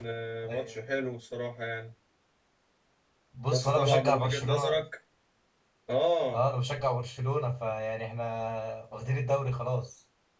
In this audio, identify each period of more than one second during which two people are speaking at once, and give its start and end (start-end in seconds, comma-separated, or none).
3.5-4.8